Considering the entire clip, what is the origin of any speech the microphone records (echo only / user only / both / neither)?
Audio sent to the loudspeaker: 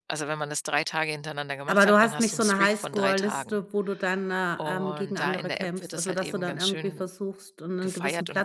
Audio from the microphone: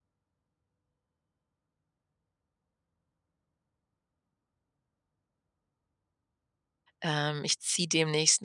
user only